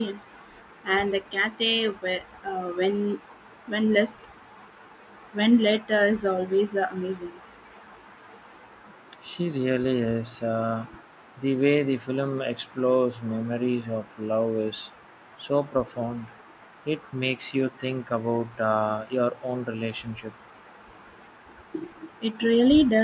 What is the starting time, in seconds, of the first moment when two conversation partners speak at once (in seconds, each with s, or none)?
none